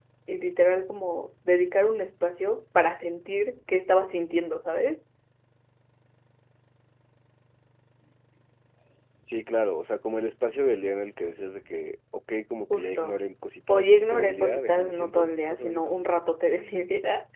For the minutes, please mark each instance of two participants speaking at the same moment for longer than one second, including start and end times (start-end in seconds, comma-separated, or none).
13.7-16.1